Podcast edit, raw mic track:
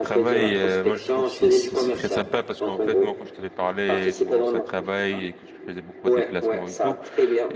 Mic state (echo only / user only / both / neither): both